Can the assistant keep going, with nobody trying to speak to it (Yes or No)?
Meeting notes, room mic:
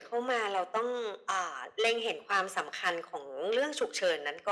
Yes